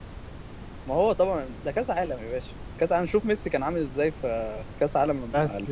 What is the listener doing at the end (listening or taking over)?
taking over